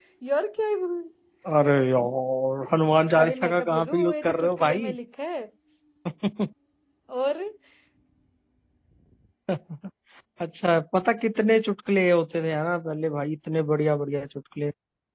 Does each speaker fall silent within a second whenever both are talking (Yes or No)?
No